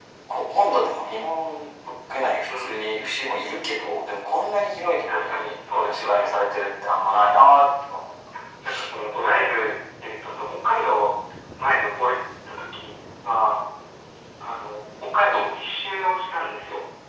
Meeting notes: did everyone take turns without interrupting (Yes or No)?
No